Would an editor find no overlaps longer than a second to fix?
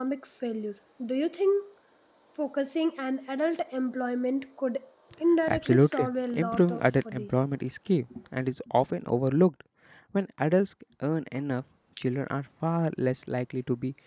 No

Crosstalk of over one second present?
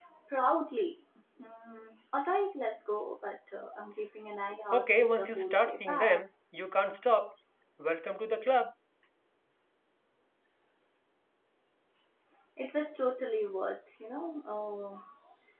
Yes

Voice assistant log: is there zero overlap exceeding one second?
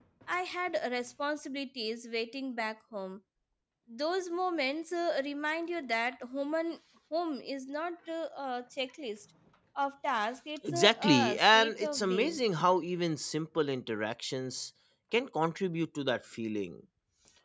No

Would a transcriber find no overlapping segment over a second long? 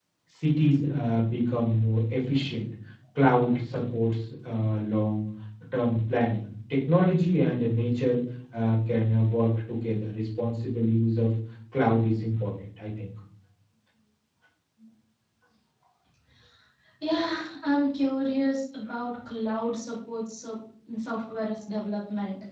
Yes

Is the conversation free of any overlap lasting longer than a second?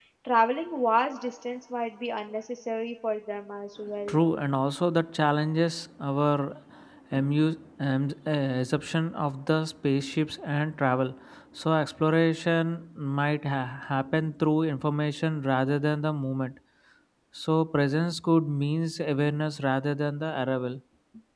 Yes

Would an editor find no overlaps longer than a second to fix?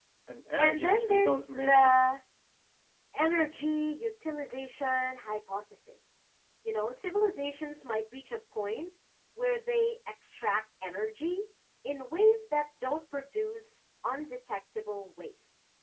No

